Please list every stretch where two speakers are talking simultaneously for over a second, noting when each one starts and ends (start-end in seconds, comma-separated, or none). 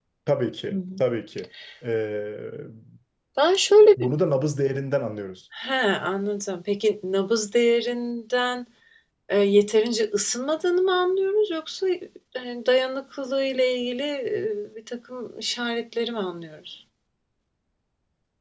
none